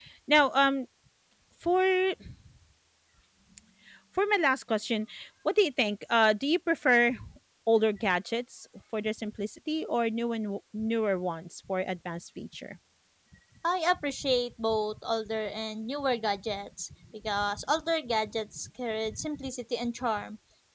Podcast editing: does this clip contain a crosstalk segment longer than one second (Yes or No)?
No